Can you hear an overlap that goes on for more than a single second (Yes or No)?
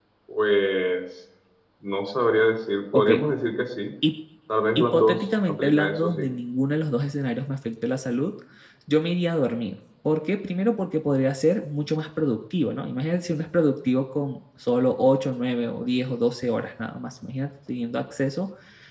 Yes